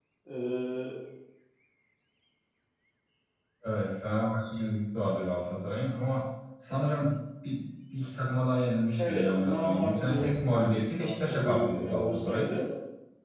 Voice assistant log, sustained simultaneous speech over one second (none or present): present